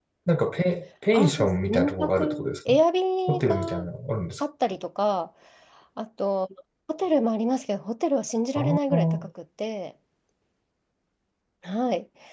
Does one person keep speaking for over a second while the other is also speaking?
Yes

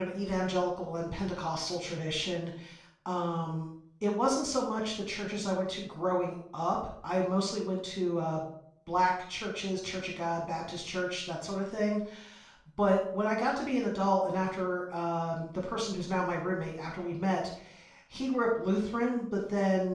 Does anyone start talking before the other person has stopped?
No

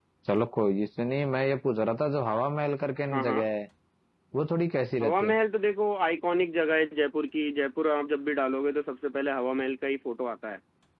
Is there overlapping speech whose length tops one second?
No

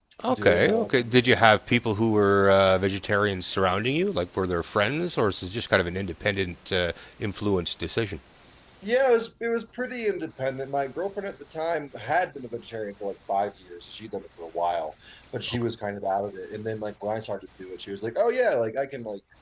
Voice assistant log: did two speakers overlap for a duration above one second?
Yes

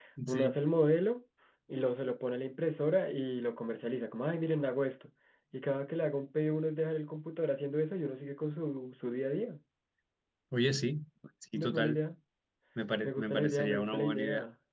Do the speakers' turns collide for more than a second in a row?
Yes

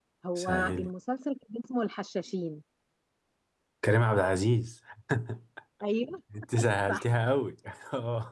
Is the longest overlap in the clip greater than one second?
No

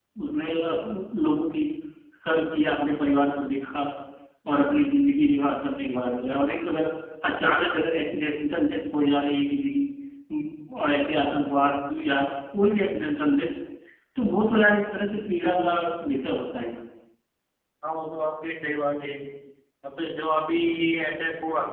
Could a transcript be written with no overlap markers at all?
Yes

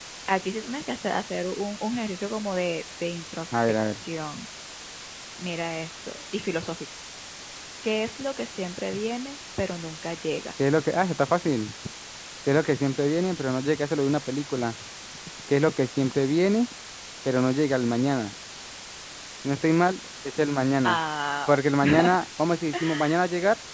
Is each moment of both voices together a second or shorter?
Yes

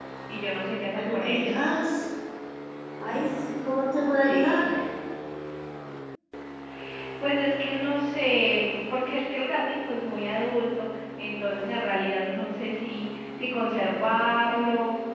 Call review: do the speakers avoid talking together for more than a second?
Yes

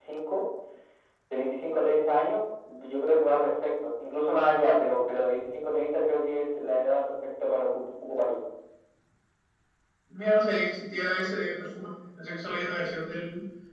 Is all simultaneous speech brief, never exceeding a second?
Yes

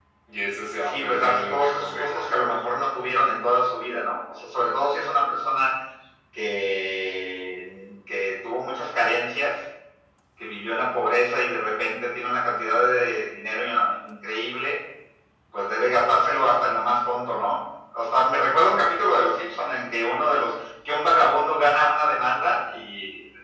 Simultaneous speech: Yes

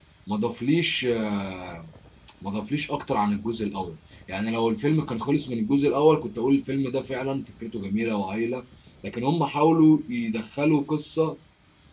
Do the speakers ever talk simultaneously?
No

